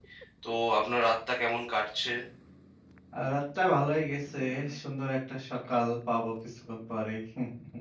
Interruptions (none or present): none